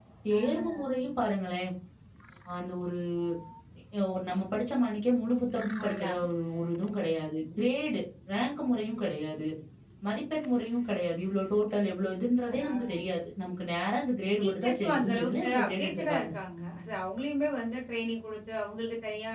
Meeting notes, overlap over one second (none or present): present